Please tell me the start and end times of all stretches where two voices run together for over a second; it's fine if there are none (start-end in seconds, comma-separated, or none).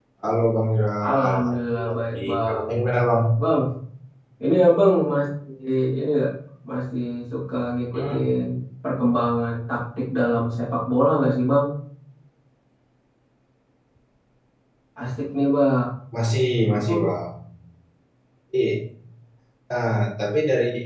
1.1-2.6